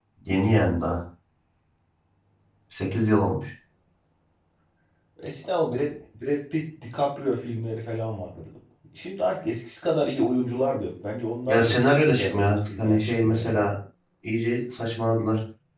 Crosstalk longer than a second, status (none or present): present